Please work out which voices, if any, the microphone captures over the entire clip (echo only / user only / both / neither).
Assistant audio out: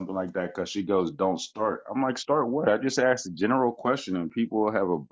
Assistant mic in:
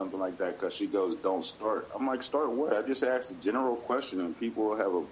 echo only